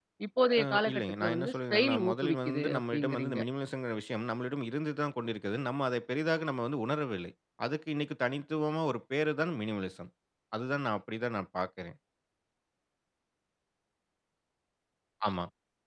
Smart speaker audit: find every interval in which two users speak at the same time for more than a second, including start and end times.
0.6-3.4

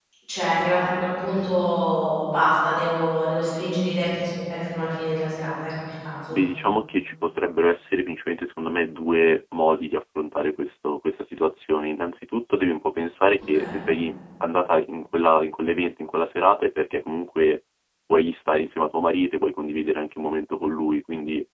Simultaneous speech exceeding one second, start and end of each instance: none

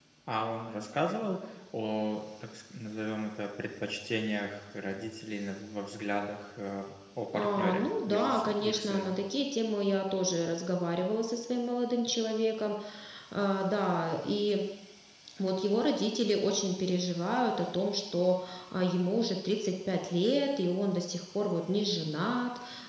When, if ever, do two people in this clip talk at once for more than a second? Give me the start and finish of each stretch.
7.3-9.2

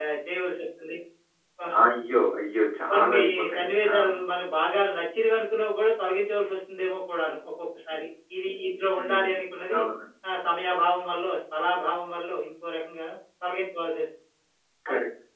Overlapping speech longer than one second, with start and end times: 2.9-4.2

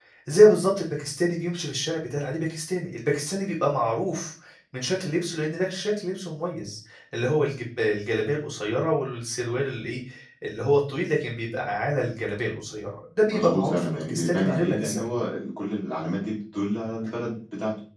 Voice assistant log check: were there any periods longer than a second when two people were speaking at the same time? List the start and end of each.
13.3-15.0

